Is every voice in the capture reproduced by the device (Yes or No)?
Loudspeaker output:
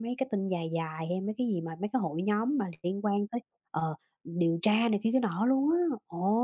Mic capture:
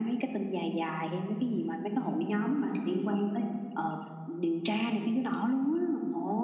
Yes